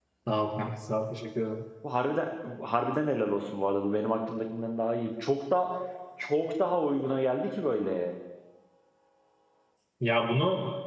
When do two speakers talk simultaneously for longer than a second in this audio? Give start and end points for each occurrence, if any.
none

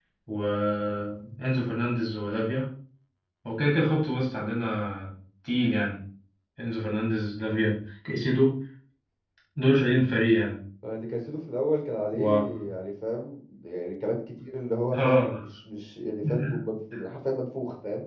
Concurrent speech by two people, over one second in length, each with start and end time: none

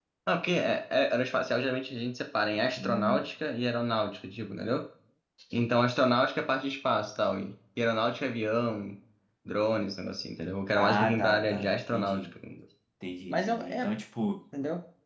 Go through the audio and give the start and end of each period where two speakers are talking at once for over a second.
10.8-12.3

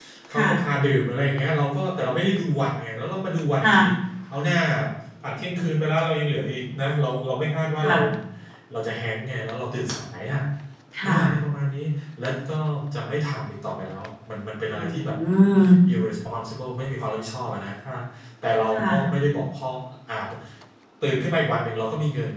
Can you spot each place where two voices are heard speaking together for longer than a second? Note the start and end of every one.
none

